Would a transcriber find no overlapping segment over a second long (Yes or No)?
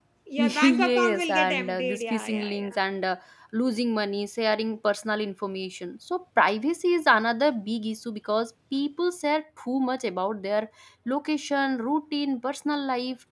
No